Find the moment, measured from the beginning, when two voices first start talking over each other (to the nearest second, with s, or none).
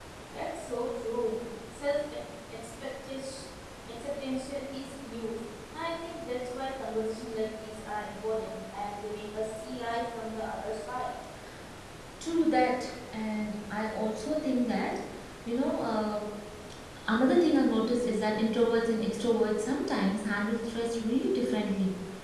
none